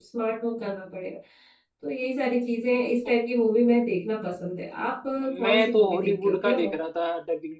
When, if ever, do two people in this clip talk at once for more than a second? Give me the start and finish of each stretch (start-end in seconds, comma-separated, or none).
5.3-6.7